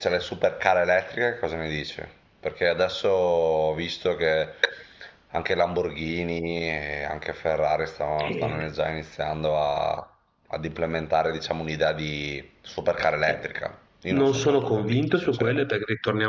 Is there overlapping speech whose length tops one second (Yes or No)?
Yes